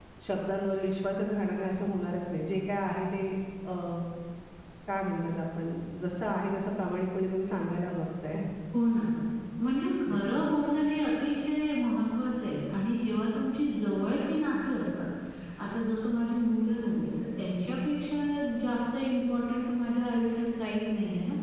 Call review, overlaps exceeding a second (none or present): none